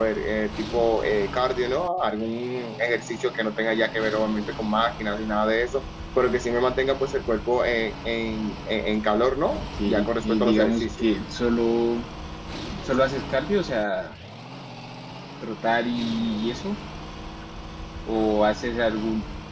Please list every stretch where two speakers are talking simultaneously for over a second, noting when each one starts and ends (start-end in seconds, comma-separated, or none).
9.5-11.1